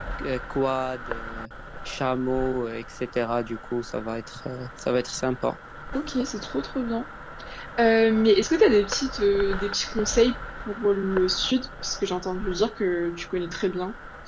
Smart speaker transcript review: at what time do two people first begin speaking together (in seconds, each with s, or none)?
none